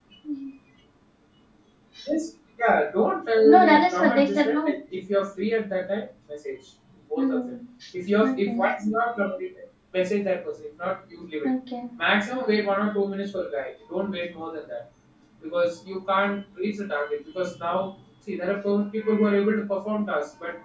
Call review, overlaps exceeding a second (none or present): present